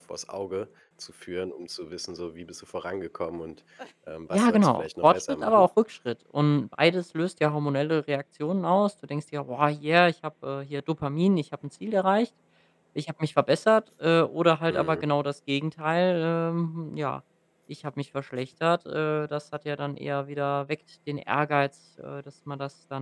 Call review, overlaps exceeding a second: present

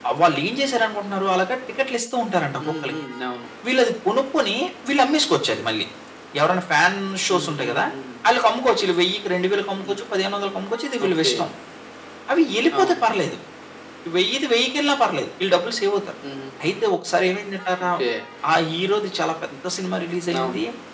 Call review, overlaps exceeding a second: none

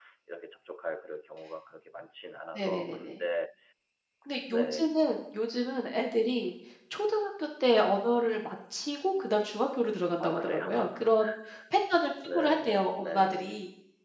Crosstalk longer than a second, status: present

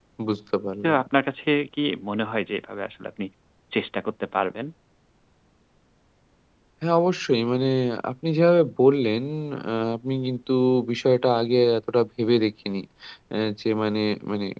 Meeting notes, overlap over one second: none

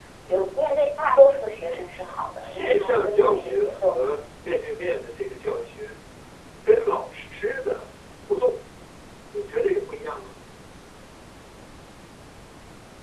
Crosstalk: present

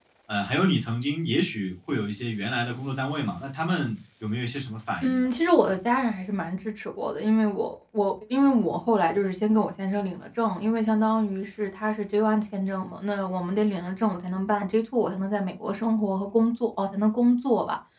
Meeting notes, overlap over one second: none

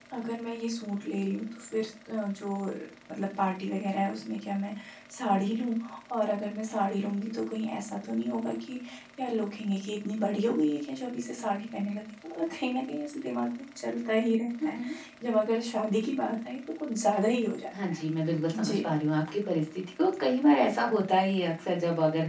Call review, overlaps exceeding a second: none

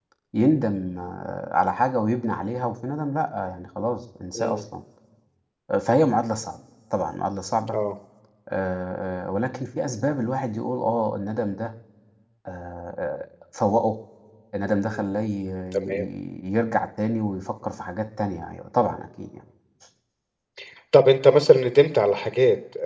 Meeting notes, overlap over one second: none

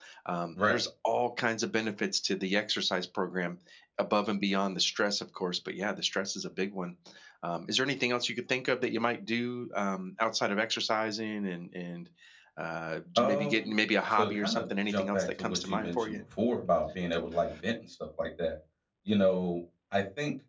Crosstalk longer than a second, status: present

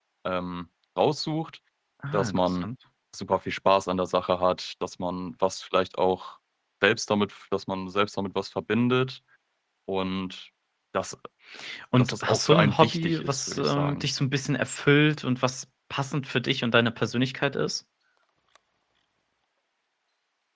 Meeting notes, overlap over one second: present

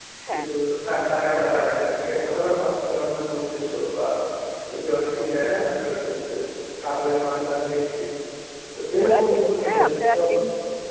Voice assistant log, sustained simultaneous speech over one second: present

